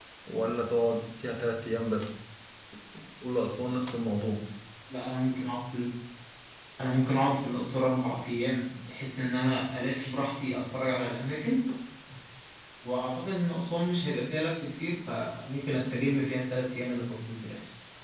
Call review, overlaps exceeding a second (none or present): none